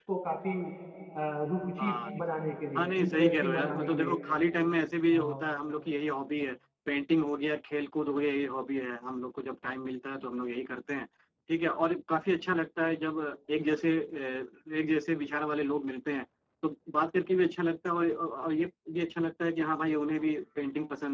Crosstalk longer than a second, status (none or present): present